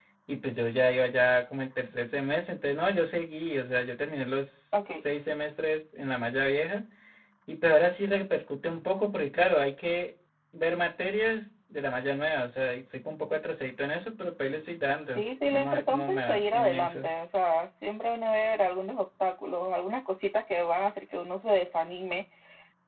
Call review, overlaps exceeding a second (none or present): present